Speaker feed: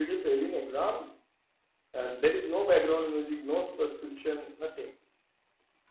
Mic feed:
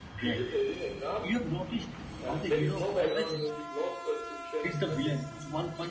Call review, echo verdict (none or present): present